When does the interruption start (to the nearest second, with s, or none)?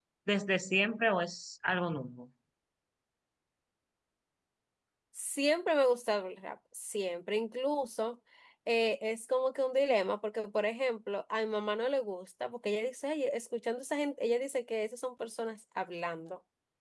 none